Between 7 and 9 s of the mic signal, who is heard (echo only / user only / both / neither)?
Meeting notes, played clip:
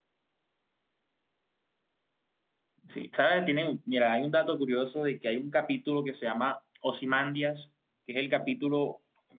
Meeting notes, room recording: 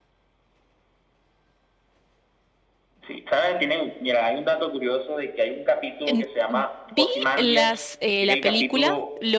both